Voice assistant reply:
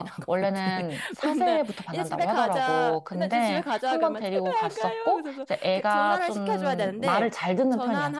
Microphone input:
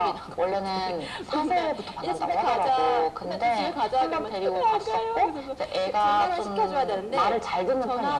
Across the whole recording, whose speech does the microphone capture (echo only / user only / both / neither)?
echo only